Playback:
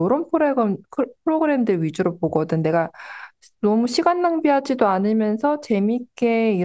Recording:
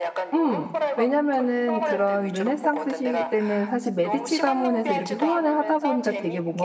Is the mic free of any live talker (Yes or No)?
No